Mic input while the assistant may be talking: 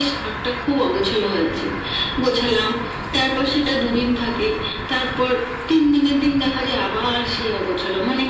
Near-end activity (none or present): none